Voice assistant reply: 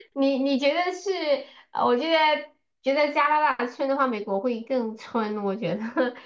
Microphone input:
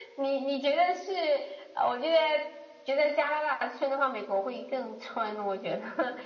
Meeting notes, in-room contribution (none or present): none